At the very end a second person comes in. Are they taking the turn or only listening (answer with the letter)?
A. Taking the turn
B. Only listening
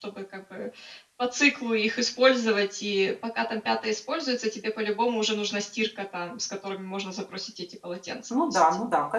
A